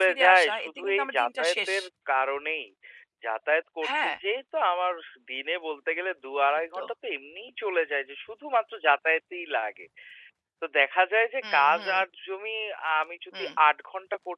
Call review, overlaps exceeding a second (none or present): present